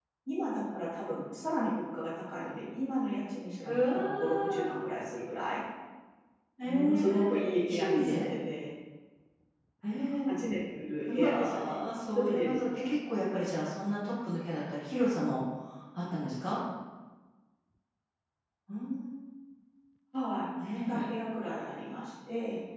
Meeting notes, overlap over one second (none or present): present